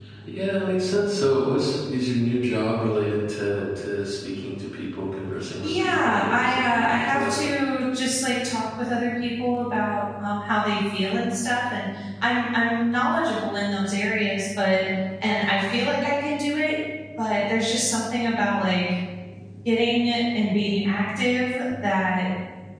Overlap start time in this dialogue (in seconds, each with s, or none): 5.6 s